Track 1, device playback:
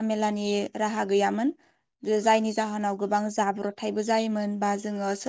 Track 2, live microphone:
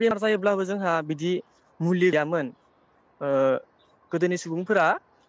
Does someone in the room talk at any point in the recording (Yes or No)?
Yes